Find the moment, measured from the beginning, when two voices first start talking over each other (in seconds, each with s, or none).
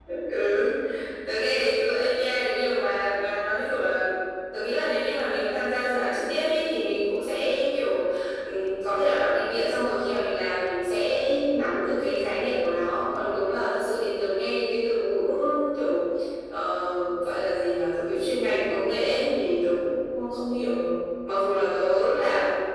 none